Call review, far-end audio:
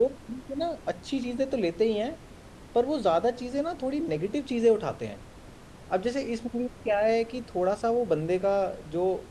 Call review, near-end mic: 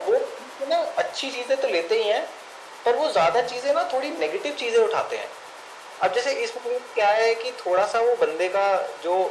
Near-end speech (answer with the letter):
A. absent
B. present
A